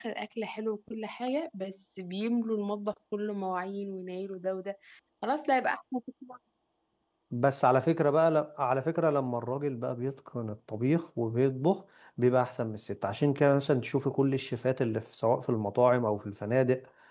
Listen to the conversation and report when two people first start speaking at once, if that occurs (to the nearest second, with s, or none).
none